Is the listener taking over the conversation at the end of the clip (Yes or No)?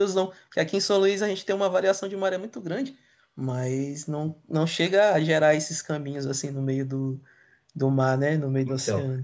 Yes